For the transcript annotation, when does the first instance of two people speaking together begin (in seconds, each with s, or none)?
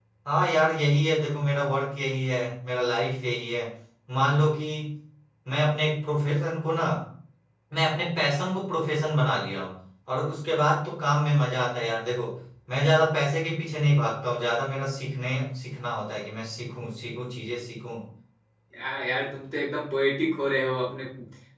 none